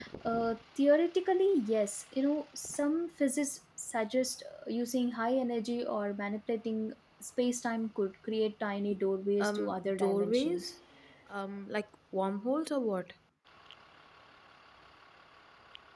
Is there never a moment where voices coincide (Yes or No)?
No